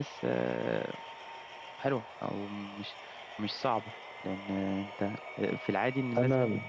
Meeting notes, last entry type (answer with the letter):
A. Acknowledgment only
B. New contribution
A